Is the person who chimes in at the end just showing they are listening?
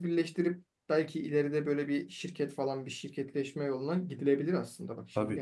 No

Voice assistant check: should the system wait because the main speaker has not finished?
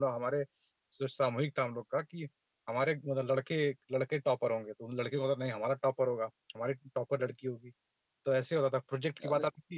Yes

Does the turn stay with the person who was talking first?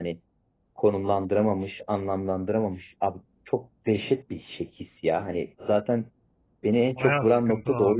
No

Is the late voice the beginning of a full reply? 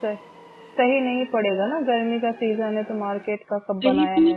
Yes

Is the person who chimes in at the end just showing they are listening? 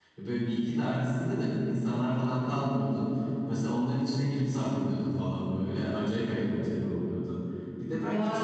No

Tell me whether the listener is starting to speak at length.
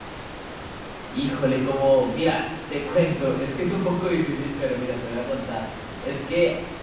No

